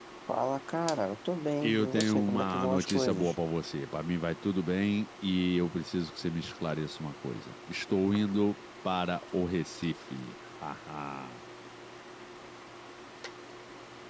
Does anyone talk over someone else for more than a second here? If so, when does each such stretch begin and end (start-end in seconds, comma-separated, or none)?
1.6-3.3